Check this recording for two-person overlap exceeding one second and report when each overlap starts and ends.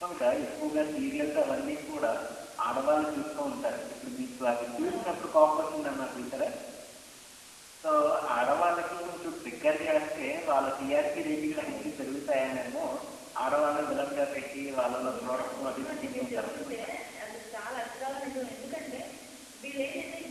15.1-16.8

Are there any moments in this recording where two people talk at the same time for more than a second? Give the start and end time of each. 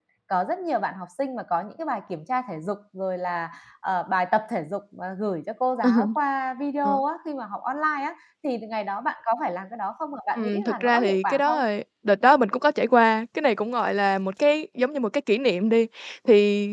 10.4-11.6

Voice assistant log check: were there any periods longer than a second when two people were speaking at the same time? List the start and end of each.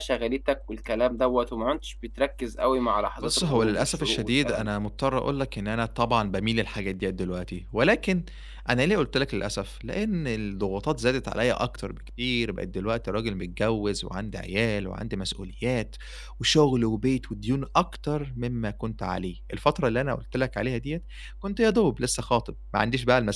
3.2-4.7

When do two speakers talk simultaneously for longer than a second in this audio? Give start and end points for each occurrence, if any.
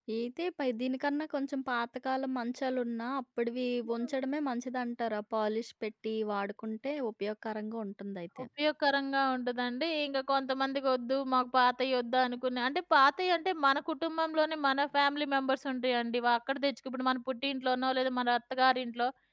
none

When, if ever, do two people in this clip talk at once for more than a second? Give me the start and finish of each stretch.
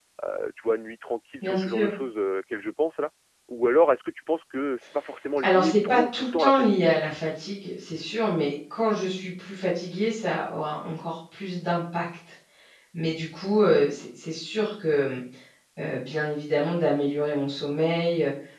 5.4-6.9

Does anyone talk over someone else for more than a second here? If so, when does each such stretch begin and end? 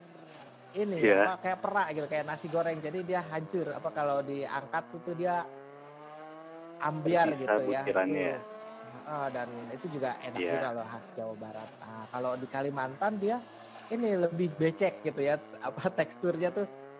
7.0-8.4

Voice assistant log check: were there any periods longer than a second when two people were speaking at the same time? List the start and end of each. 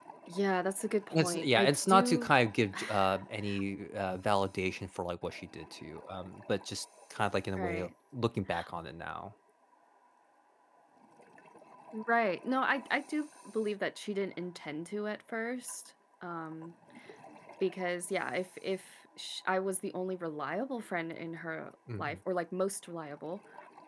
1.1-2.3

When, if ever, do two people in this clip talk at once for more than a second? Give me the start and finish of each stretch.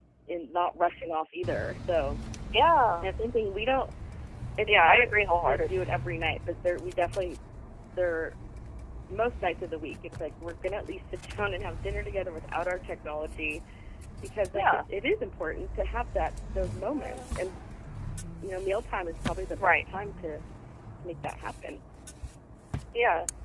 4.7-5.9

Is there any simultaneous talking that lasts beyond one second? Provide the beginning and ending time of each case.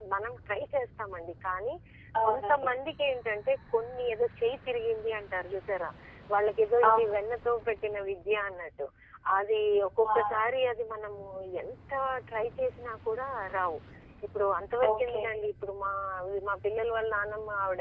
none

